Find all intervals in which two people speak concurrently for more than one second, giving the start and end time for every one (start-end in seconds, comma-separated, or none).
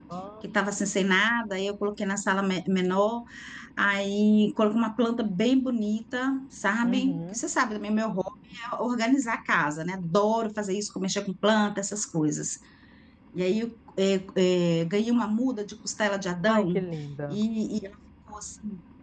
none